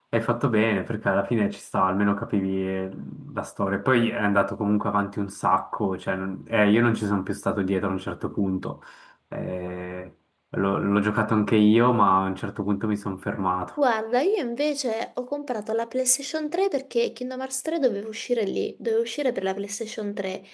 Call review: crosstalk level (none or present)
none